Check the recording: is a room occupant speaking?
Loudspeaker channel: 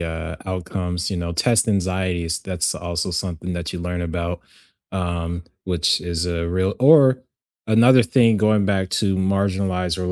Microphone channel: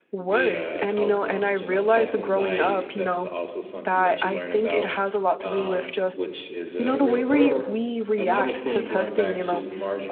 Yes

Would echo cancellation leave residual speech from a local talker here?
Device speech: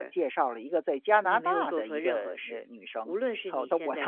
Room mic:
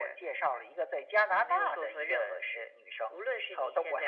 No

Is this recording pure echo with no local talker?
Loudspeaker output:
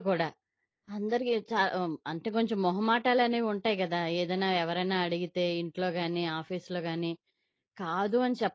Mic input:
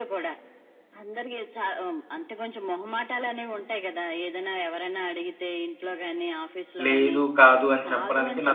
No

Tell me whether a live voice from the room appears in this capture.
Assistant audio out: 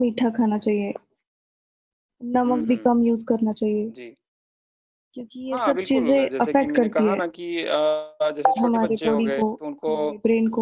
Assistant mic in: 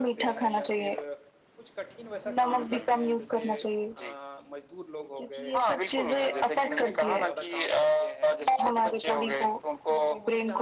Yes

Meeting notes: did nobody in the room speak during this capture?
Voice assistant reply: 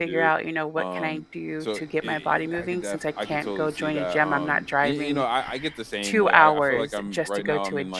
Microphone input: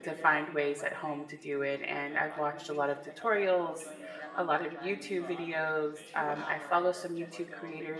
No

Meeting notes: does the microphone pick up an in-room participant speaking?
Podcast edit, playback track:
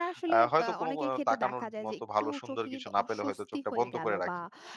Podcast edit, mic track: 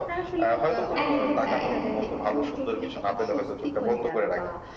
Yes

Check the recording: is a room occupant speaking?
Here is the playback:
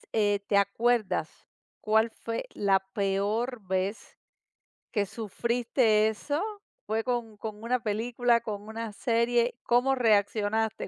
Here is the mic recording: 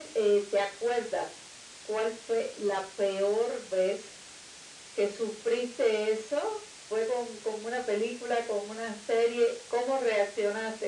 No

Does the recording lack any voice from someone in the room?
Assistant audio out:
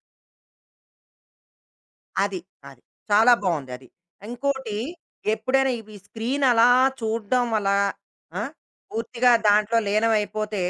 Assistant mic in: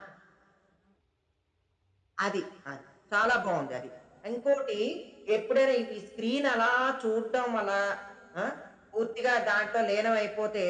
Yes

